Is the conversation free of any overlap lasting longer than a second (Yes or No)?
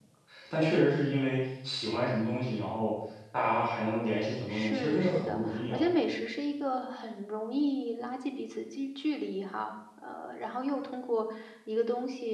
No